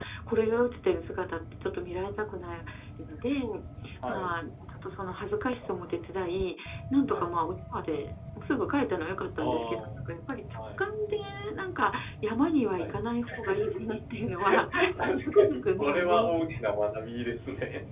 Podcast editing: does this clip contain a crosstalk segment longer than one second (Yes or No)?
Yes